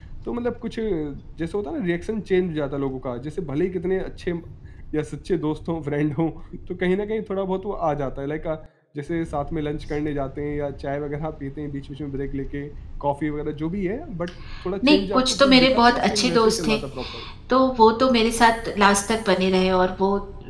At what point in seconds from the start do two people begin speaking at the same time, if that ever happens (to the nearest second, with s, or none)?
15 s